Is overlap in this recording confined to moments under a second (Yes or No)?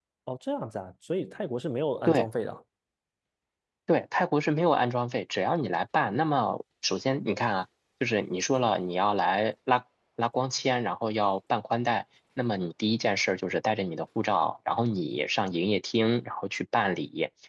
Yes